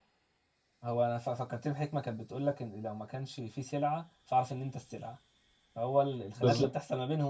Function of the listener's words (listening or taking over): listening